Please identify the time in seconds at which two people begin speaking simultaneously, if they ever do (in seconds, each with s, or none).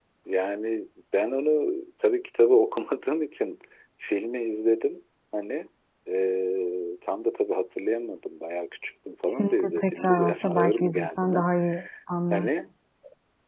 9.3 s